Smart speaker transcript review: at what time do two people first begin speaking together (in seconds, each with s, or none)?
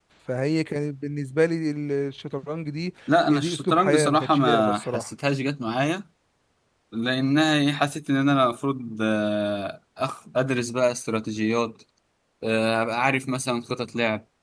3.1 s